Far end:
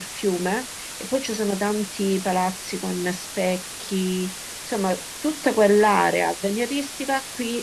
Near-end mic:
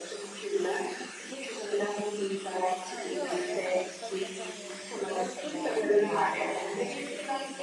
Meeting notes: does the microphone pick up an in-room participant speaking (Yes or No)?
Yes